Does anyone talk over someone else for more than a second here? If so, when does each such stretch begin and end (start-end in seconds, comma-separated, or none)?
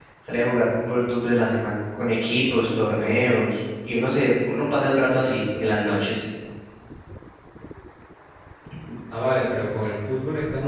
none